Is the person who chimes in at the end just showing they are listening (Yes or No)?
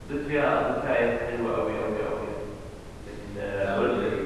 No